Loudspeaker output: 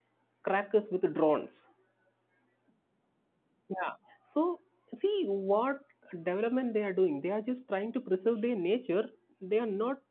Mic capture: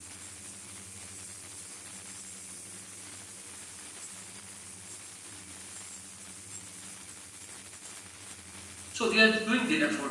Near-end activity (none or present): present